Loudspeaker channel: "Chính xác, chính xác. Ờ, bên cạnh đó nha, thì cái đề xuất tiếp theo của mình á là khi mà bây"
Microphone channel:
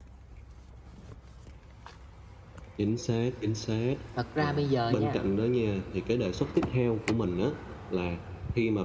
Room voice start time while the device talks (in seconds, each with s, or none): 4.2 s